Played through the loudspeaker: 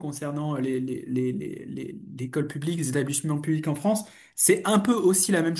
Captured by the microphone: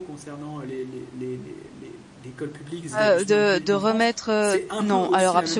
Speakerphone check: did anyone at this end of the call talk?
Yes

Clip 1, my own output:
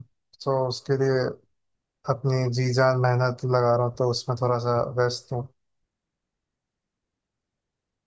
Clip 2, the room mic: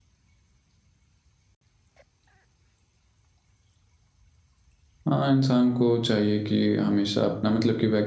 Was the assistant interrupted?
Yes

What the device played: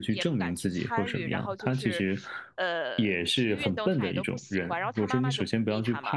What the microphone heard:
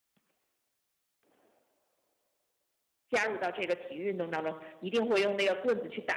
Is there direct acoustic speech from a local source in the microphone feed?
Yes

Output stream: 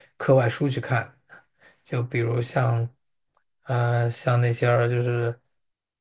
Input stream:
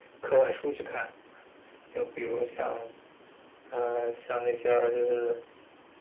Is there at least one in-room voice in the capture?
No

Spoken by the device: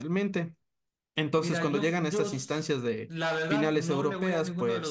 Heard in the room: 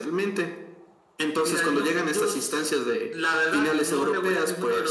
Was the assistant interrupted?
No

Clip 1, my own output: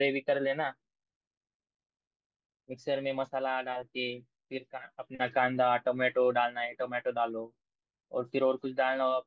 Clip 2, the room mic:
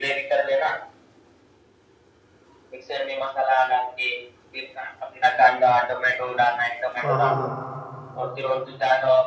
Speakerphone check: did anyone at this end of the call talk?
Yes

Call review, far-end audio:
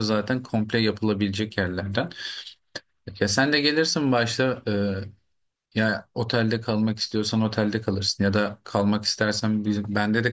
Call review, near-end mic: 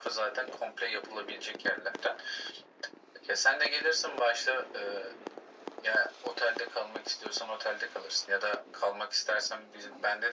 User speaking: No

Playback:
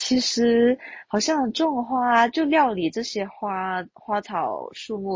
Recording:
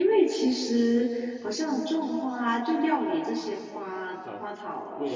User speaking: Yes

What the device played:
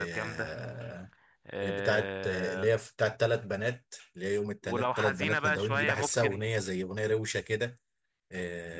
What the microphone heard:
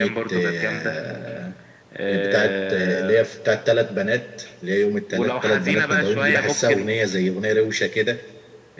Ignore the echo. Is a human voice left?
No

